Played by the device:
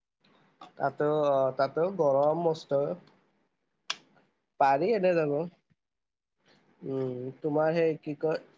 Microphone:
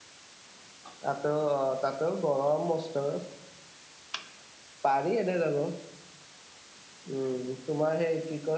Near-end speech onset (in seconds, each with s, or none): none